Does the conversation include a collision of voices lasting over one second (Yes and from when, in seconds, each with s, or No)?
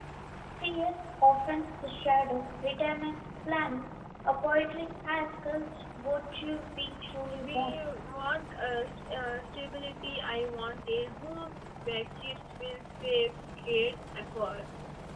No